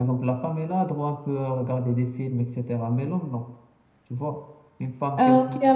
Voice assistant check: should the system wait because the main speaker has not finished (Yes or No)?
No